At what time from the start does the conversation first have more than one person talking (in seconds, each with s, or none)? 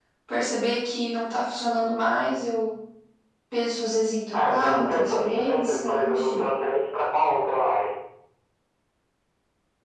4.3 s